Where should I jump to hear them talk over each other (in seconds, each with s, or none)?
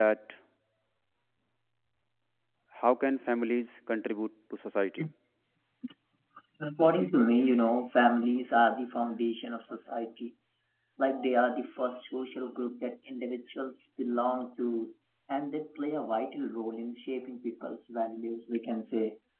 none